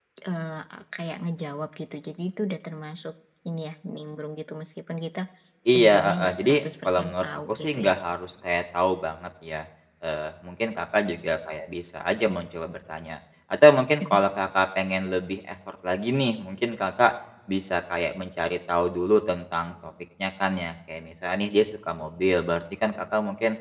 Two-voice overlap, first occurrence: 5.7 s

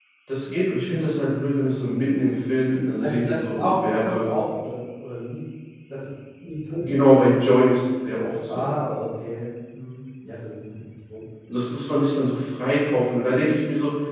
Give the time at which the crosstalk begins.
3.0 s

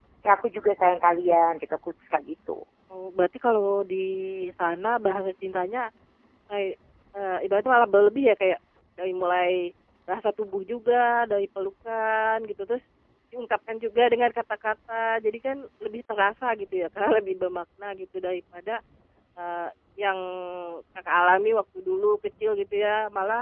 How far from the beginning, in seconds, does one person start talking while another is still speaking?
none

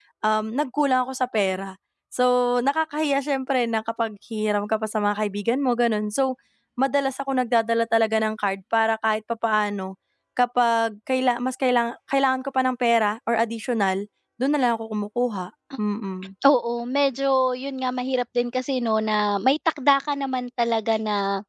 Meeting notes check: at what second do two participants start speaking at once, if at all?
none

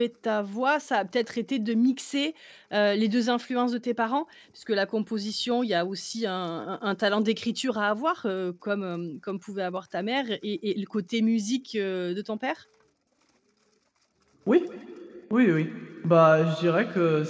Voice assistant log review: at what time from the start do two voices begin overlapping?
none

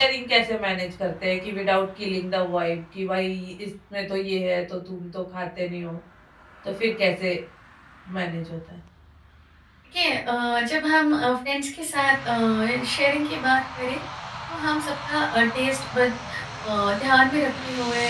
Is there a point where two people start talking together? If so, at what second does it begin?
none

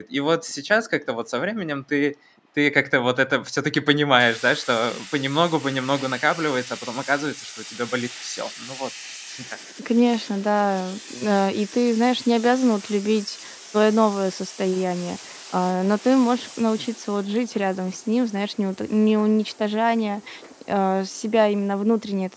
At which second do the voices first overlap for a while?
none

